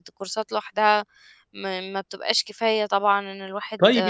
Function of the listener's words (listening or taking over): taking over